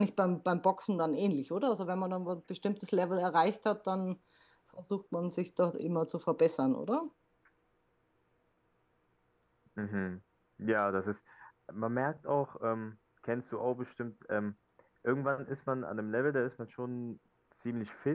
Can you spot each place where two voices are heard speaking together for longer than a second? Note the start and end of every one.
none

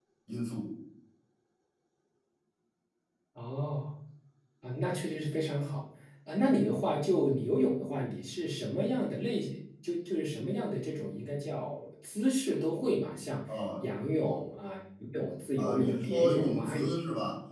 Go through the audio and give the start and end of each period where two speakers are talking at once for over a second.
15.6-16.9

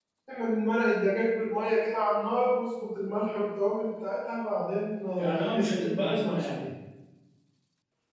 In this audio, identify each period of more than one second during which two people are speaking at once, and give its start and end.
5.2-6.6

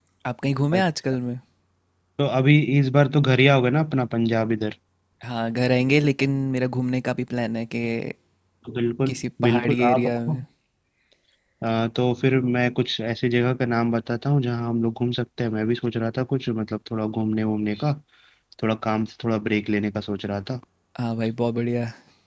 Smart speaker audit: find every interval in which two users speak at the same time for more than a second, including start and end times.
9.1-10.4

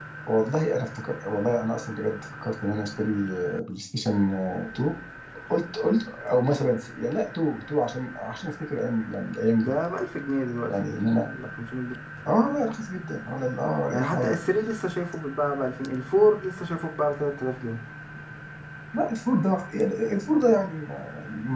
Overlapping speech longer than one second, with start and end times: none

